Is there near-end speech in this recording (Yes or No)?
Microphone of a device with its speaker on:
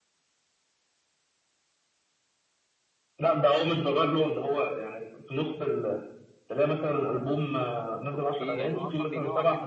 Yes